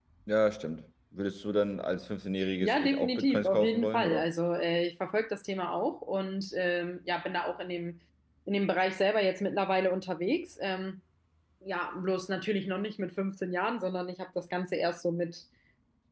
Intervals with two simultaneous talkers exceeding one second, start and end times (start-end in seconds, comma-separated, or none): 2.6-4.3